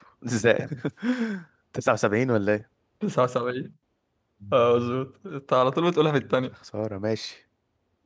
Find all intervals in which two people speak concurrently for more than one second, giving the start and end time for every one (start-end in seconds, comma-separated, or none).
none